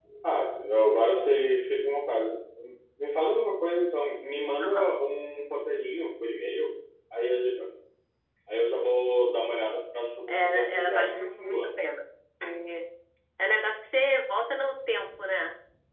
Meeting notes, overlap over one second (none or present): present